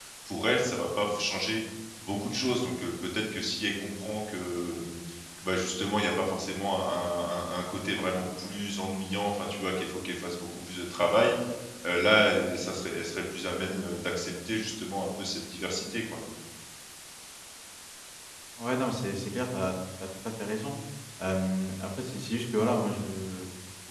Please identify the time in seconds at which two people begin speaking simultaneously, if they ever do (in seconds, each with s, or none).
none